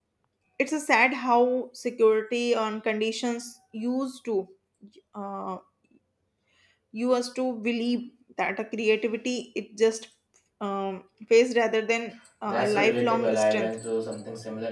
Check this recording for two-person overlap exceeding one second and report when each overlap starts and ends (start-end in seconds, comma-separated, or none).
12.4-13.8